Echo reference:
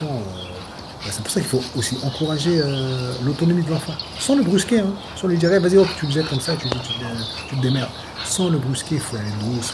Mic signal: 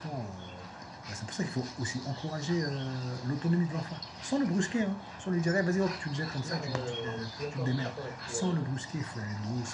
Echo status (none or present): present